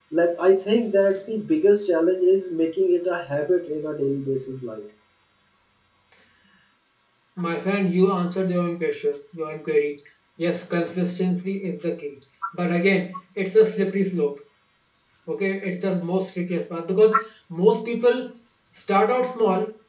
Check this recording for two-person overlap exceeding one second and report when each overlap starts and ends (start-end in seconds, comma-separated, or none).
none